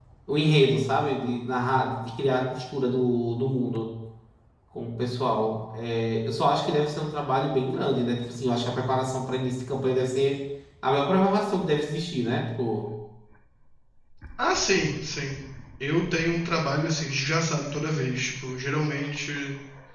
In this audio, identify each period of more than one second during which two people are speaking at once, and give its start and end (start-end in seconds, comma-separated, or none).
none